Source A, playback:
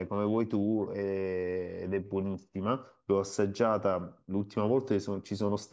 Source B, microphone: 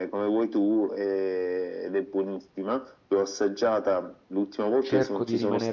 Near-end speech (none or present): present